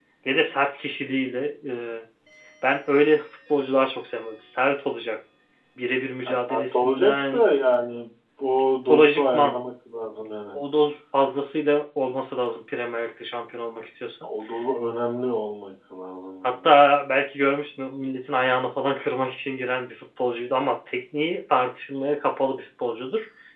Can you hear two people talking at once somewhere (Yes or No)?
Yes